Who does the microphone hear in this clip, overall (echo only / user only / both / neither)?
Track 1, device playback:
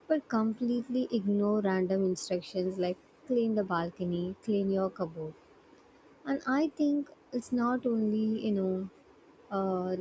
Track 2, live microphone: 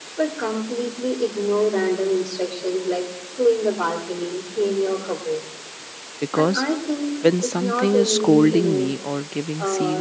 both